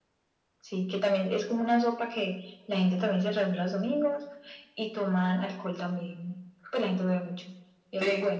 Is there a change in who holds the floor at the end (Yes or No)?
Yes